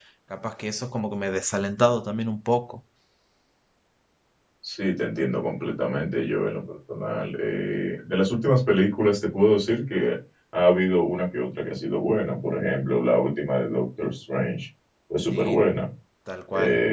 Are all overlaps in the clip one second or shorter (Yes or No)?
Yes